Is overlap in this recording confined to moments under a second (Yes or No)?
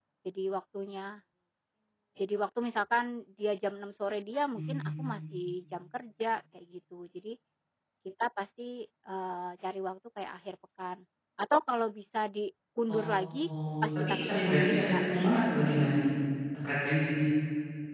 No